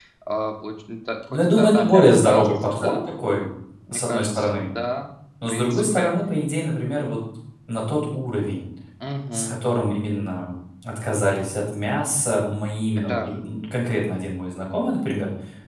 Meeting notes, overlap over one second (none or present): present